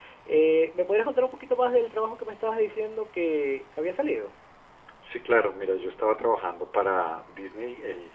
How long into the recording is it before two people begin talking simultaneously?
none

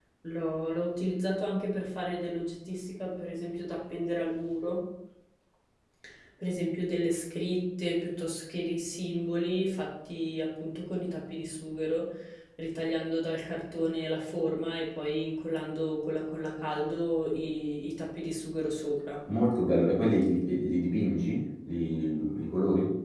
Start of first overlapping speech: none

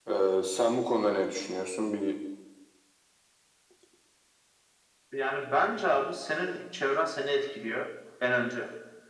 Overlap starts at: none

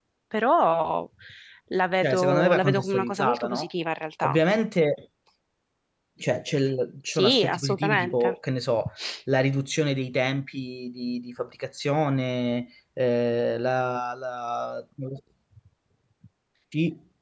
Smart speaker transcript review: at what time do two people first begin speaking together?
2.0 s

